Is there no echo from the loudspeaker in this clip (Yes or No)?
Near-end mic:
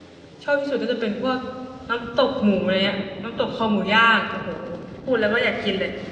Yes